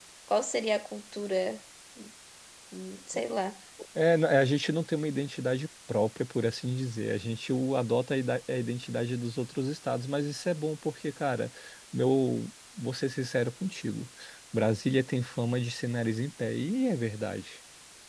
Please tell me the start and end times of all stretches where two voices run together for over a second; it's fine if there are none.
none

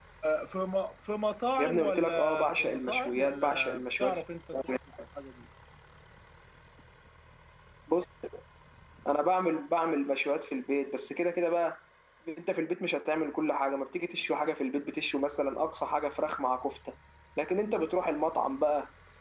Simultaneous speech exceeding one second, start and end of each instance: 1.6-4.2

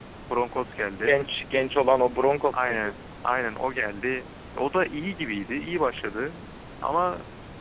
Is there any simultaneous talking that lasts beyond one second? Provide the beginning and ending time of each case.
none

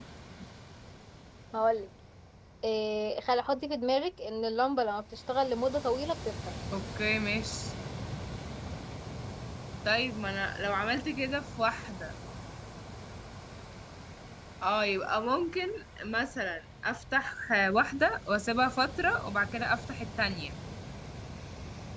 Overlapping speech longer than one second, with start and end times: none

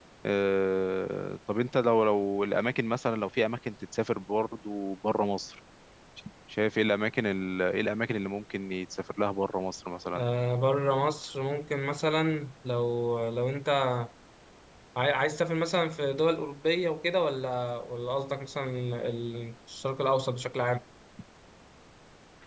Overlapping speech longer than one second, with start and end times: none

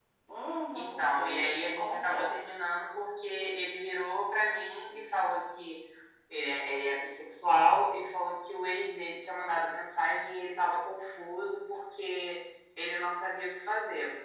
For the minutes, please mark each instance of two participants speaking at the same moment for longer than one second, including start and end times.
0.8-2.4

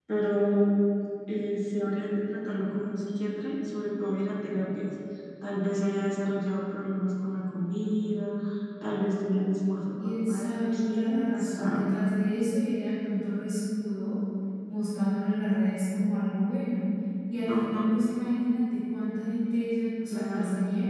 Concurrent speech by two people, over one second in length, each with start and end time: 10.0-11.8

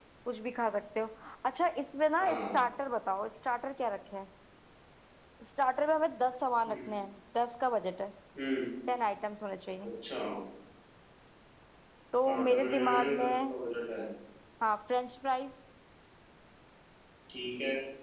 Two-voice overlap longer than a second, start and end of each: 12.2-13.6

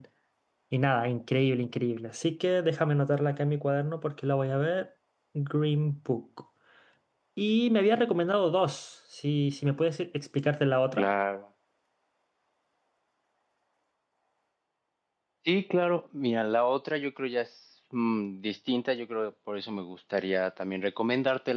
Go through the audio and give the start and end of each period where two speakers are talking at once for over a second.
none

